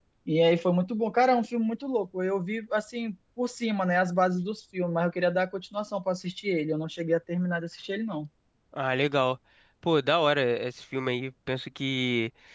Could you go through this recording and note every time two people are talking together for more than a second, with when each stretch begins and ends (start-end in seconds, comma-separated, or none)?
none